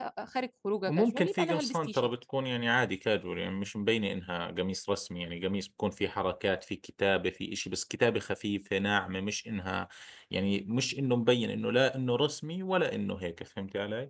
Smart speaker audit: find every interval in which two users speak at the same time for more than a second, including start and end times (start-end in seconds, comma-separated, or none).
0.9-2.1